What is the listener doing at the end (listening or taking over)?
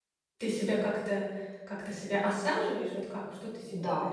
taking over